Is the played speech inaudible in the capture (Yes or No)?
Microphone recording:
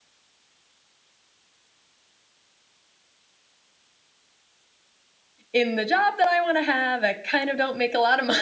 Yes